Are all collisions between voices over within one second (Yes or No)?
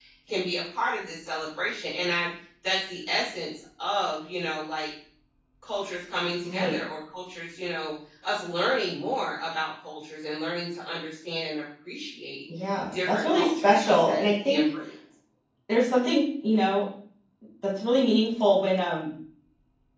No